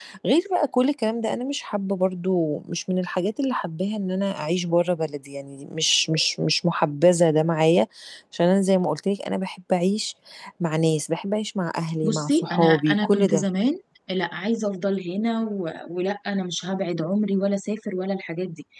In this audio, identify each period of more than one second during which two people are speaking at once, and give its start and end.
12.0-13.4

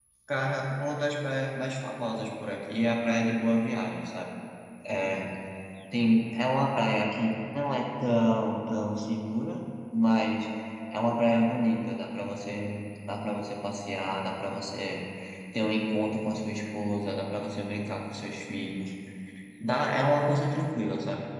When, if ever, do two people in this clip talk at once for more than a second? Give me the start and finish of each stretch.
none

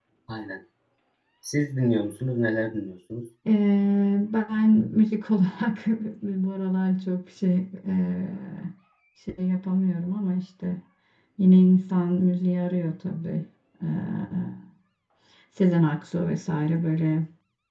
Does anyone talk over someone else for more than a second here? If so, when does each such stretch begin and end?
none

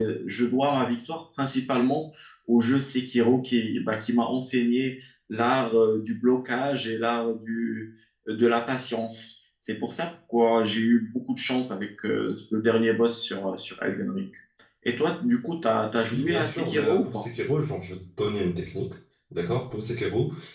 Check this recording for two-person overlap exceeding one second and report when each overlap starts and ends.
16.0-17.3

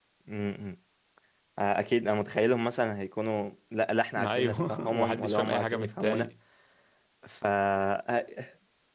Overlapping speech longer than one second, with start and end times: 4.2-6.3

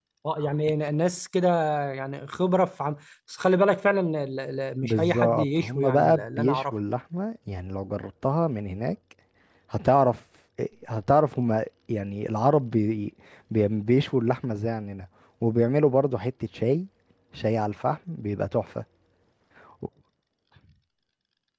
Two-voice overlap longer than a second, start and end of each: 4.8-6.7

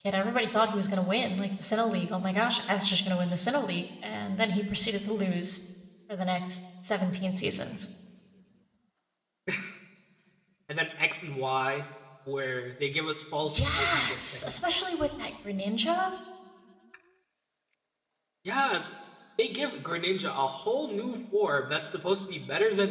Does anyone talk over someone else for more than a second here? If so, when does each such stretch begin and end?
13.4-15.0

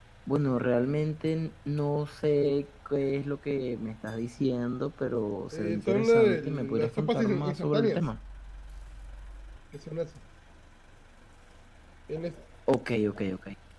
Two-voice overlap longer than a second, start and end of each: 5.5-8.0

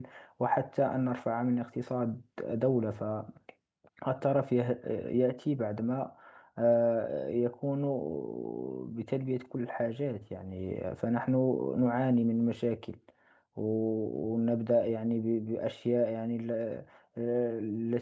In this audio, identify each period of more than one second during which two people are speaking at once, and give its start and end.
none

